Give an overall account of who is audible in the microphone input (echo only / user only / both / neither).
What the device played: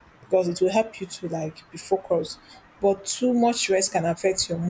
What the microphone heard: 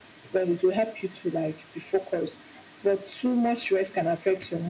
echo only